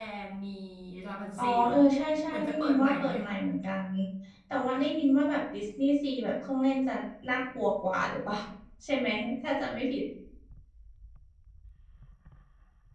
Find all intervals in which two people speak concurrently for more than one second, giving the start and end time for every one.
1.4-3.4

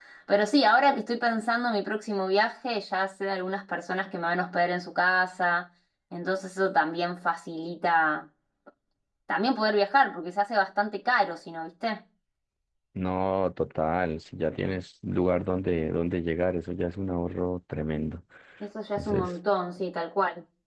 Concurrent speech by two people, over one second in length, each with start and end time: none

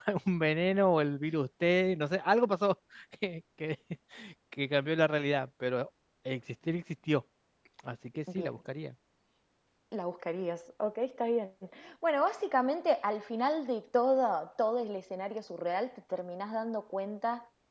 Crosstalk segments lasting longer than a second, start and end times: none

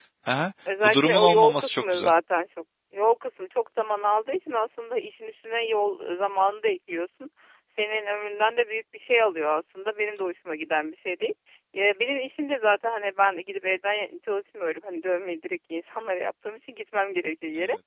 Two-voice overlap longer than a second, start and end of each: 0.8-2.1

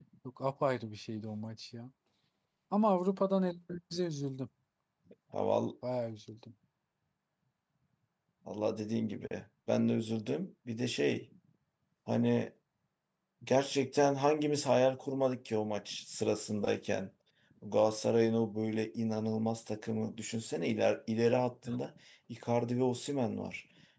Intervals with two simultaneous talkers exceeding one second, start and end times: none

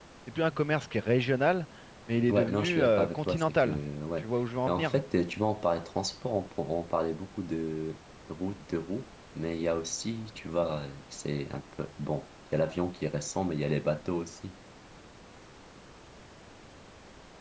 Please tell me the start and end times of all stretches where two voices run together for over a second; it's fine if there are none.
2.3-3.8

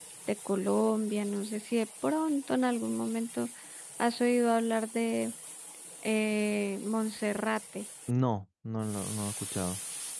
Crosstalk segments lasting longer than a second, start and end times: none

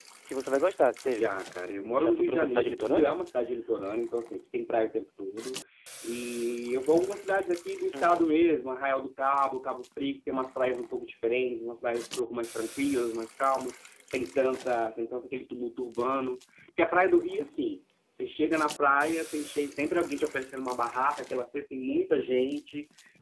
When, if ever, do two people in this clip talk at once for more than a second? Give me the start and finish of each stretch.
1.9-3.2

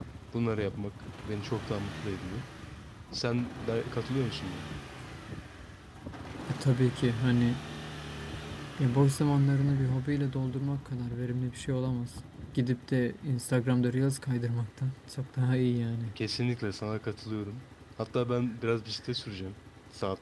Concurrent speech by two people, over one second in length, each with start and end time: none

